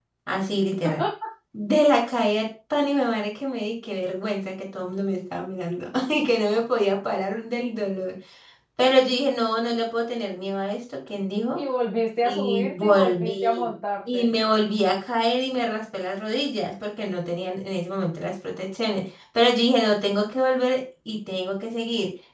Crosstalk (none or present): present